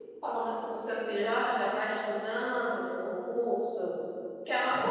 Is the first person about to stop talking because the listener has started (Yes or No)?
No